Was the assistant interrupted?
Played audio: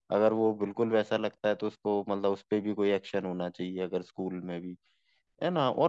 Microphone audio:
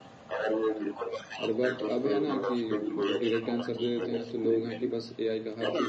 Yes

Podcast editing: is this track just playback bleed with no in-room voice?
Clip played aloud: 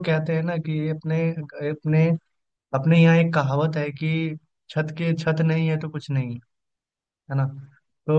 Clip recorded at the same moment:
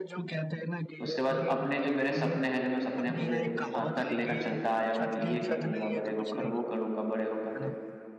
No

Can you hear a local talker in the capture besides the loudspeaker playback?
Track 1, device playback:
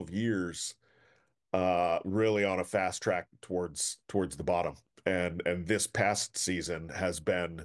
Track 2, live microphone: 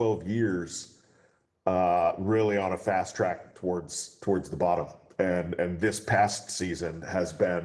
No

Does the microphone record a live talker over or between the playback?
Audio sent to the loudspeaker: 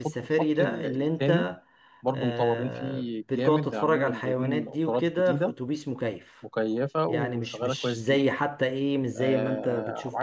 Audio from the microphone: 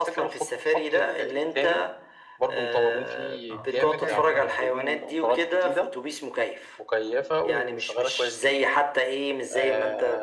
Yes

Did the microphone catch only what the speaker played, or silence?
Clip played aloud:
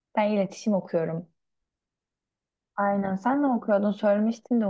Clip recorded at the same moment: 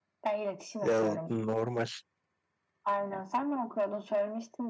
No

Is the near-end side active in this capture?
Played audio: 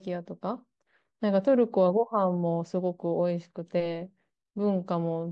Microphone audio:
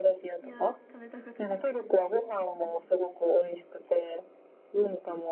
Yes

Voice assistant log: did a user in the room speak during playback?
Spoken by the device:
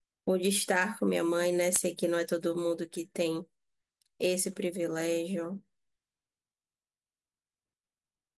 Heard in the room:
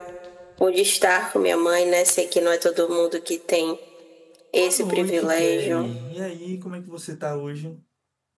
Yes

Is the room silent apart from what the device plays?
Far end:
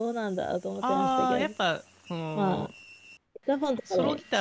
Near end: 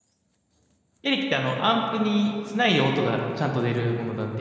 No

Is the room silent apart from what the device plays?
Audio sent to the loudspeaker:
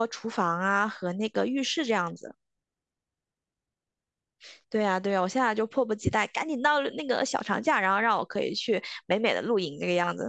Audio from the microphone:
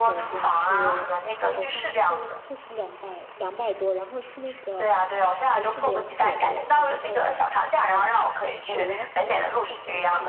No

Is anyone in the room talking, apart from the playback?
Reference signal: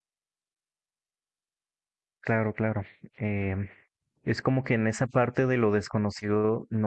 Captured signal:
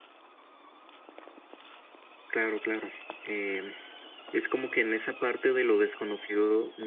No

